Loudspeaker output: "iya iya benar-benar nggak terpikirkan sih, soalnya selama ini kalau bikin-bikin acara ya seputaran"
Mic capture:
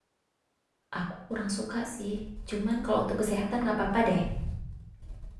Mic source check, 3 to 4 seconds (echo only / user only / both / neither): user only